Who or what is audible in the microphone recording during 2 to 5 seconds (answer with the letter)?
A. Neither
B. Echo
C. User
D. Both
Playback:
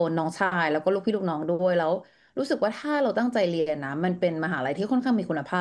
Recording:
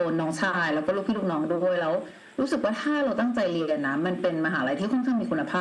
B